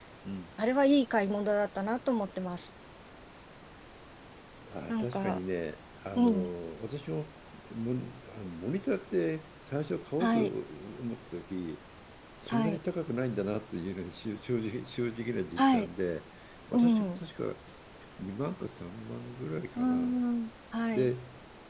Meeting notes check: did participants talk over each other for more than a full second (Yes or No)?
No